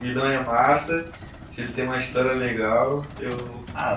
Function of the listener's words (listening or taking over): taking over